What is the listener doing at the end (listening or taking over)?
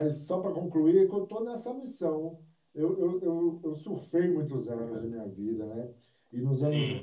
listening